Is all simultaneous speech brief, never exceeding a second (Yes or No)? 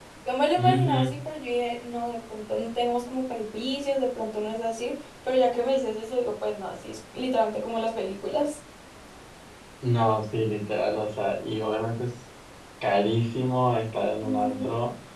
Yes